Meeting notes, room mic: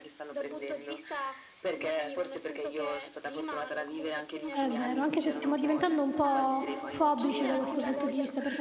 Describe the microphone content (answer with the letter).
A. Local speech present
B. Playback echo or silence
A